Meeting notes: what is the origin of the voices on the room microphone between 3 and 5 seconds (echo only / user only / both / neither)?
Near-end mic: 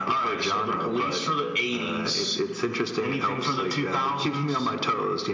echo only